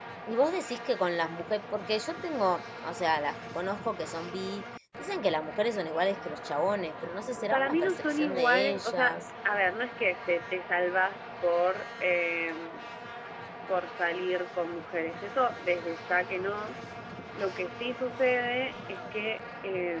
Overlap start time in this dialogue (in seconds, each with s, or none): 7.4 s